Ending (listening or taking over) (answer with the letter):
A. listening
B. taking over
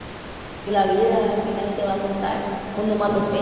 B